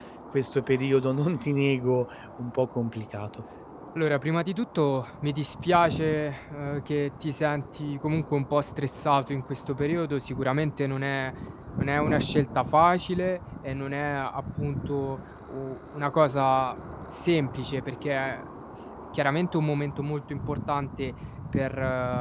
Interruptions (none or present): none